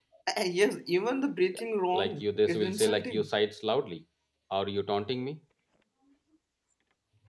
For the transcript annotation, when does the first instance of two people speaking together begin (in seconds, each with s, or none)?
1.9 s